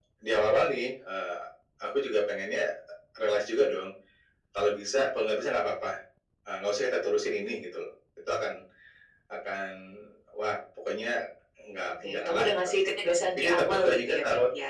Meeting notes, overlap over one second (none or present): present